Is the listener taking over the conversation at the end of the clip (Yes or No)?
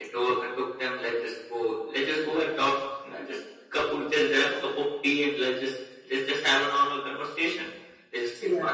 No